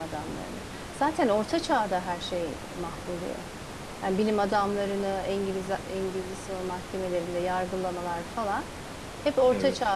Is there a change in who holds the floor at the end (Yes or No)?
No